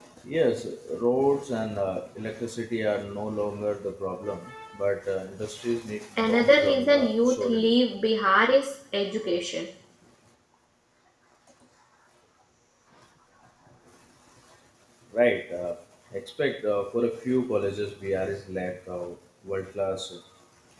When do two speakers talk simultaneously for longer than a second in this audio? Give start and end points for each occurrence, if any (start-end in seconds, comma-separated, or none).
6.2-7.7